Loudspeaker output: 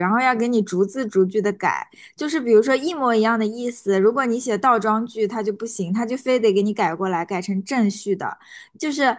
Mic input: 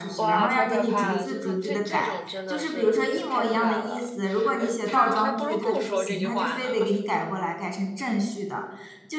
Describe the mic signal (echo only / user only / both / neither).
both